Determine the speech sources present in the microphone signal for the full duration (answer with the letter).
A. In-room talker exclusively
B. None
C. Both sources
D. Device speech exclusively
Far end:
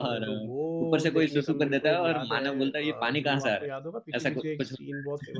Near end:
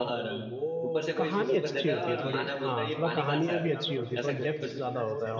C